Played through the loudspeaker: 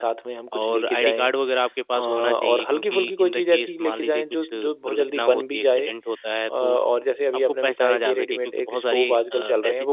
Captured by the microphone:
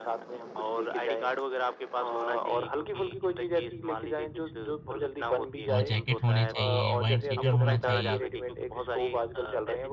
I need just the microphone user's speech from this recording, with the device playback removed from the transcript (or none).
और जैकेट होने चाहिए, वाइंड शीटर होना चाहिए